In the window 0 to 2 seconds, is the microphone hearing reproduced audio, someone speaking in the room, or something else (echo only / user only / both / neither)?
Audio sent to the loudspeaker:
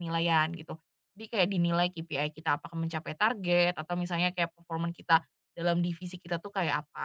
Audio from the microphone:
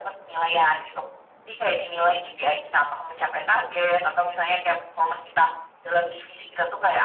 echo only